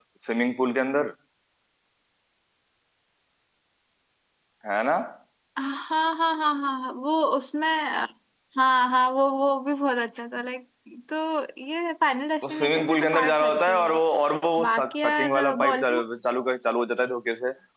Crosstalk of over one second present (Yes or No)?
Yes